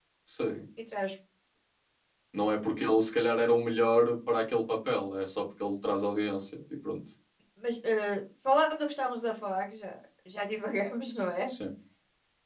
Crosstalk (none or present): none